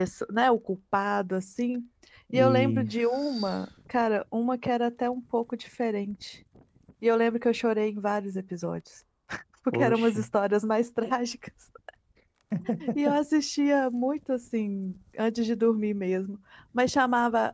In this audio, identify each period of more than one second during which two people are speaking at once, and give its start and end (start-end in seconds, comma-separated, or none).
2.3-3.5